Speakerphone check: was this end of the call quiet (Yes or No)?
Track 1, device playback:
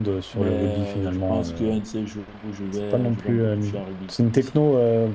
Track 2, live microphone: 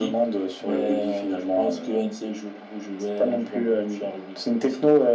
Yes